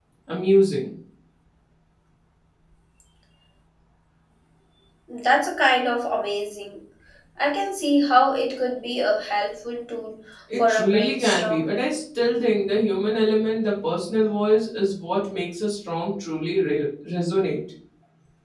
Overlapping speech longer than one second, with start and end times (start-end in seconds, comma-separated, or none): 10.6-11.8